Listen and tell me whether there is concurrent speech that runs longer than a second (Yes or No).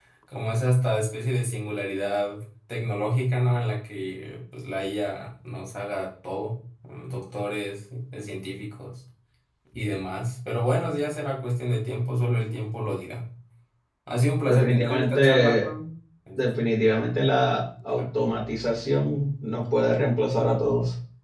Yes